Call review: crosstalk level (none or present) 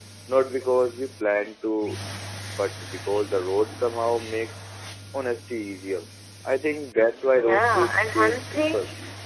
present